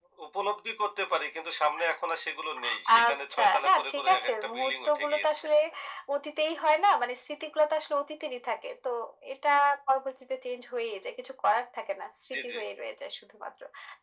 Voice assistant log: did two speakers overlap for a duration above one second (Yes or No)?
Yes